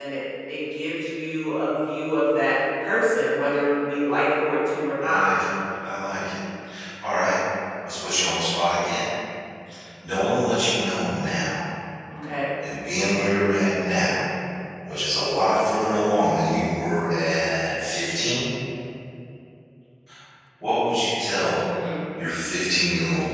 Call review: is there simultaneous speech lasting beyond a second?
No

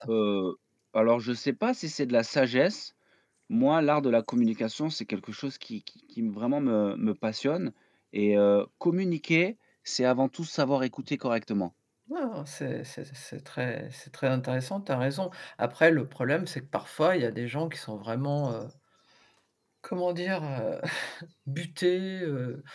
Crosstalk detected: No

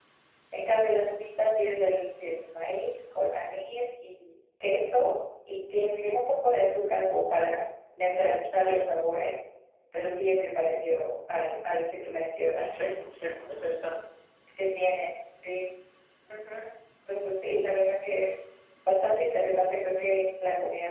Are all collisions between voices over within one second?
Yes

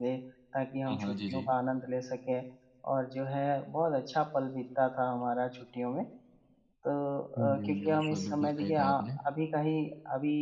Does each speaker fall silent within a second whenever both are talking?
No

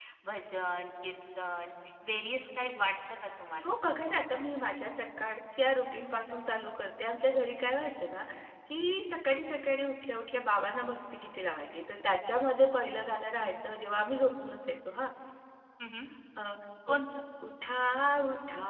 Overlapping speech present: No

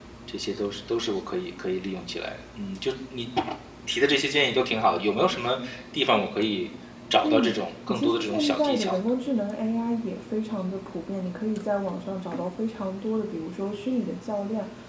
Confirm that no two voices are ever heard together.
No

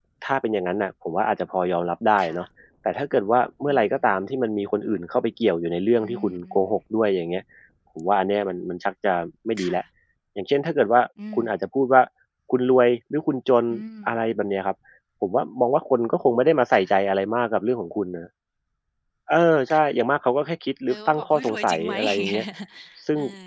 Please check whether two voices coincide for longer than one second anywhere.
Yes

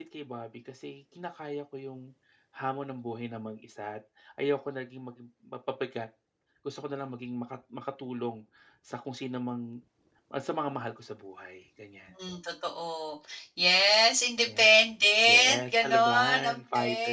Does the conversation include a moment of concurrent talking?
Yes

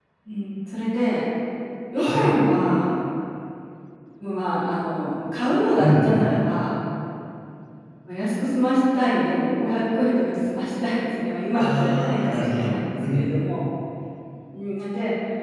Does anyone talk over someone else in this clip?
Yes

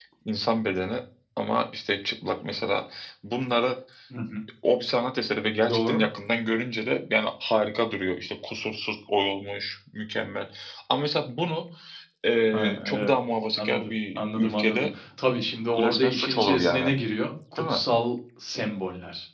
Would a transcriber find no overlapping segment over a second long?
No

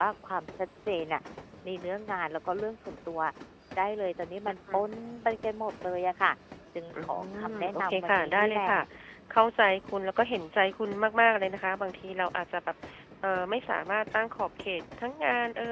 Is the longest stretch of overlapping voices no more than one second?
No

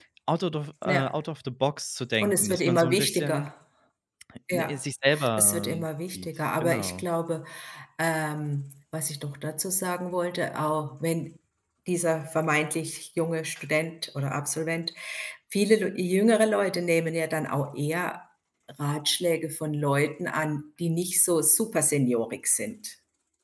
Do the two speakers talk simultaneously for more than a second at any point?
Yes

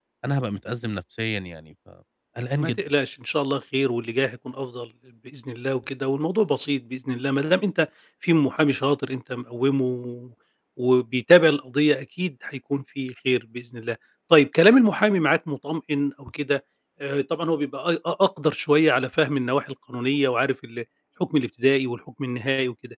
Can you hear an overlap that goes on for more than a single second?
No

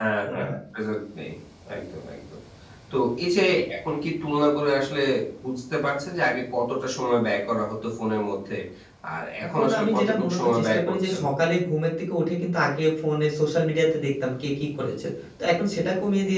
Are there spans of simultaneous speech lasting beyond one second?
Yes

